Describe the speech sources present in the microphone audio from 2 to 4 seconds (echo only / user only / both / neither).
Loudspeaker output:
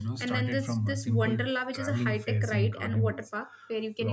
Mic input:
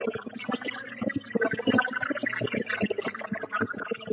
echo only